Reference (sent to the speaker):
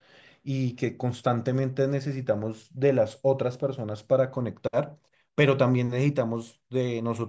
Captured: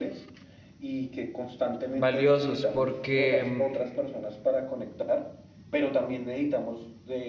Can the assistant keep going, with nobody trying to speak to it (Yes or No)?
No